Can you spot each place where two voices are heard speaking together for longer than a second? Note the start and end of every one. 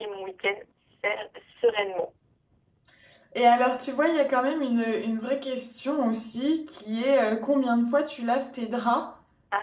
none

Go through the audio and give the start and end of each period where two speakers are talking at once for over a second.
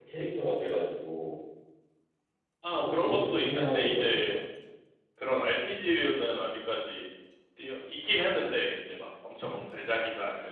2.7-4.3

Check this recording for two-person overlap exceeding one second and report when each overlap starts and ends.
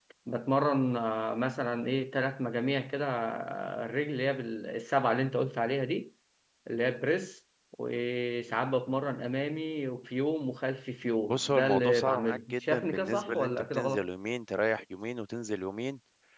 11.3-14.1

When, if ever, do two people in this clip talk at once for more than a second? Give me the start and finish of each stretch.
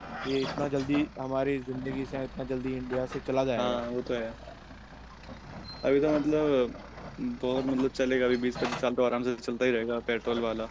none

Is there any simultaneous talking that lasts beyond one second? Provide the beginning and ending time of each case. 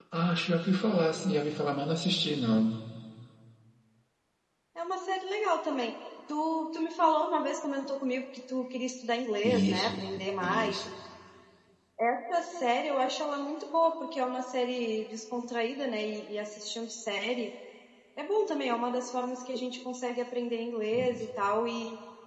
none

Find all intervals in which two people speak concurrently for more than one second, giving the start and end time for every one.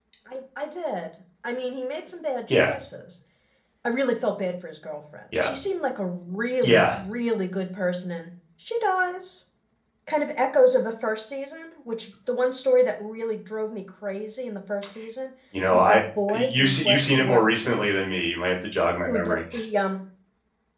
15.7-17.9

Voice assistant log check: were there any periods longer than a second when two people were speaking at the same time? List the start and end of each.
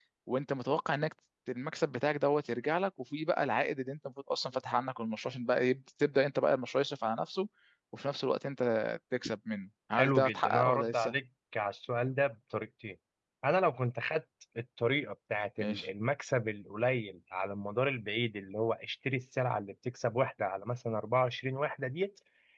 9.9-11.1

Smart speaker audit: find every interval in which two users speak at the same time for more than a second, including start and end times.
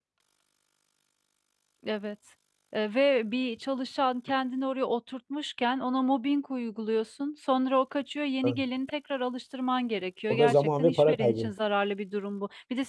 10.3-11.5

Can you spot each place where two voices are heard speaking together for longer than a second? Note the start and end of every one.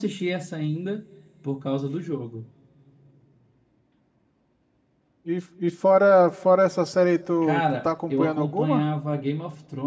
7.4-8.8

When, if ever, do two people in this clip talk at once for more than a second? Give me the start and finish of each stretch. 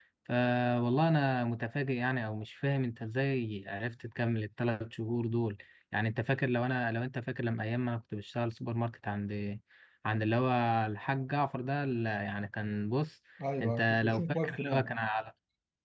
13.6-14.9

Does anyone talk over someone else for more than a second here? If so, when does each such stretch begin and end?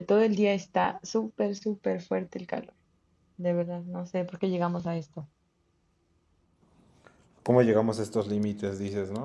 none

